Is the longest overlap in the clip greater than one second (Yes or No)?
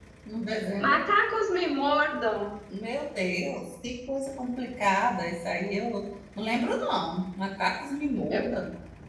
No